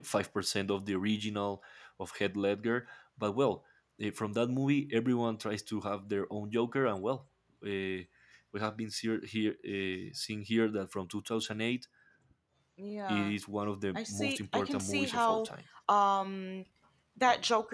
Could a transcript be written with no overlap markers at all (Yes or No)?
No